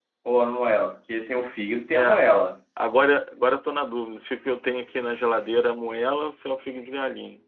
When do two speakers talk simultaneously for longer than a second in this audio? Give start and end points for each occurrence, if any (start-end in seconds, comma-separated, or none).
none